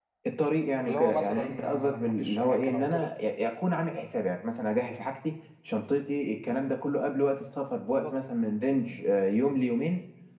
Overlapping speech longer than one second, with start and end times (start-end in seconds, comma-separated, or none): 0.8-3.1